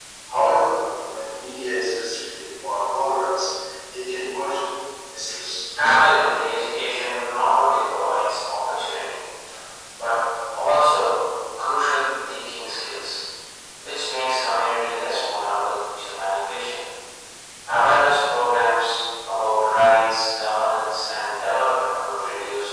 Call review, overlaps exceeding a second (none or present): none